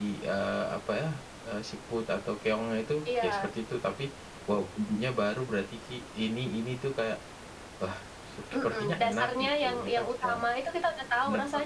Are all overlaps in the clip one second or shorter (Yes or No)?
No